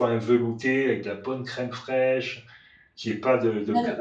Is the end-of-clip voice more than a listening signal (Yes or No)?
No